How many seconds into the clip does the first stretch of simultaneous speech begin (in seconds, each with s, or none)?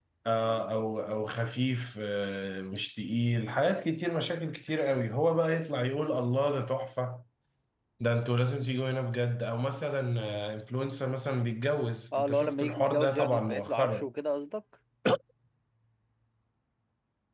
12.1 s